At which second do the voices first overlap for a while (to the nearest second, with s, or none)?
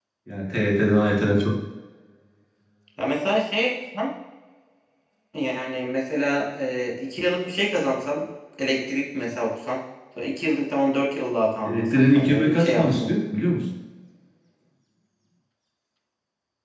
12 s